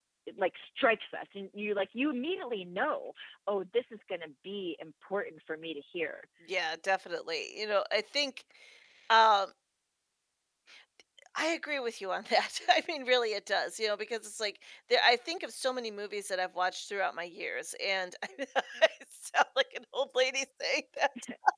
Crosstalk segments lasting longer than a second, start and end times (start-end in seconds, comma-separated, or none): none